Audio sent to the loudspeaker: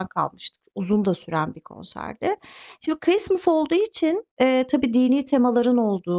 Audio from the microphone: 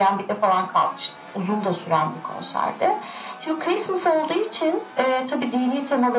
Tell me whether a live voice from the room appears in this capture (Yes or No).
No